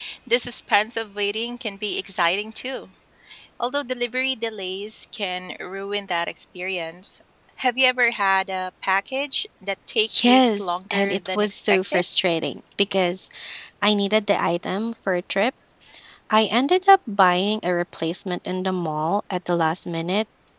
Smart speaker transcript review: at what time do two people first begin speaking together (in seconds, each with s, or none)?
10.1 s